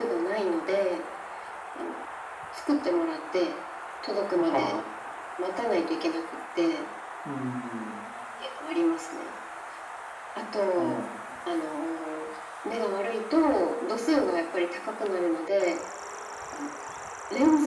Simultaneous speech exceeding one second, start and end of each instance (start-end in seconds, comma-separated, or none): none